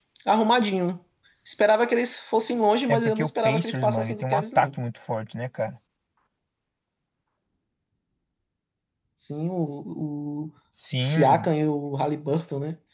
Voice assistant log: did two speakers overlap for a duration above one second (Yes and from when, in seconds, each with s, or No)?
Yes, from 2.9 s